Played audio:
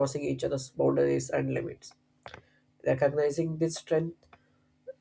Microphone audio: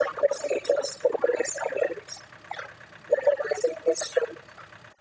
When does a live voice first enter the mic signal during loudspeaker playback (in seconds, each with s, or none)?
none